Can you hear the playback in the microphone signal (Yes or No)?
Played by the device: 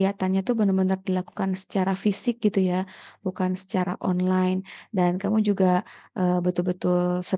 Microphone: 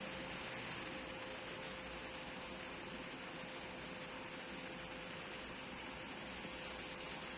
No